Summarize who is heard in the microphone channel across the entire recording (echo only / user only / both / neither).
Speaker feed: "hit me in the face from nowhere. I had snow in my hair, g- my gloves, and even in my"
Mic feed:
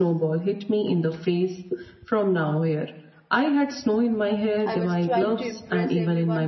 both